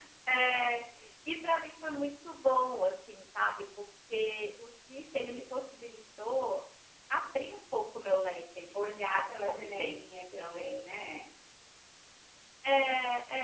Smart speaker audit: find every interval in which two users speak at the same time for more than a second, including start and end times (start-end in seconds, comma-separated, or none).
8.7-10.8